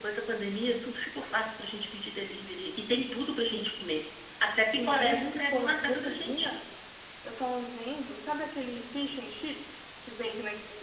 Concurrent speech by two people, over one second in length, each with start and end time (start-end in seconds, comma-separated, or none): 4.6-6.5